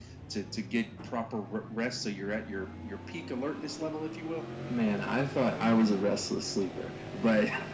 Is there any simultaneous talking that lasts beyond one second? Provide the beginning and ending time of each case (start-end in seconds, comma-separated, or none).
none